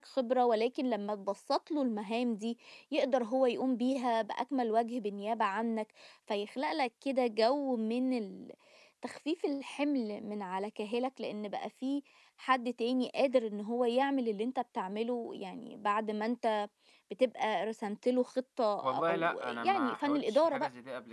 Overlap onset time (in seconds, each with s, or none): 18.8 s